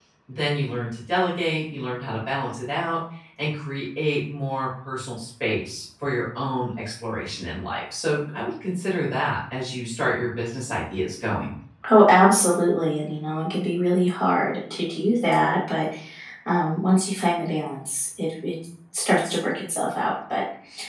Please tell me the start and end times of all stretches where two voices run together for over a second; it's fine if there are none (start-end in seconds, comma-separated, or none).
none